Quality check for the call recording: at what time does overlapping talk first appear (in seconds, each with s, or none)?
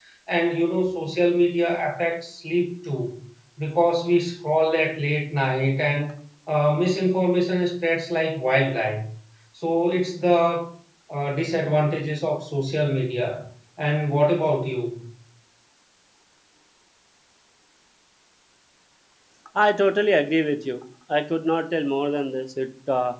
none